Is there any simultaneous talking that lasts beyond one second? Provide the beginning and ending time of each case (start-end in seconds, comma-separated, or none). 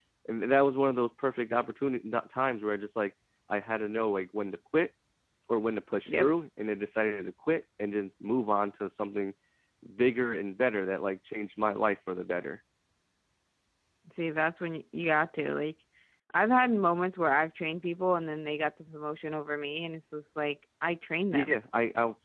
none